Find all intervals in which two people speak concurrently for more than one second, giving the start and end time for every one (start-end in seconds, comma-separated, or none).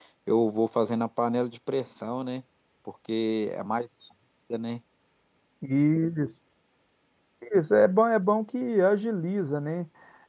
none